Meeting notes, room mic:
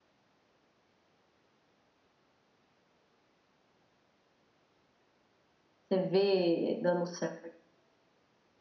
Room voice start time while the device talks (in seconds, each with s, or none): 5.9 s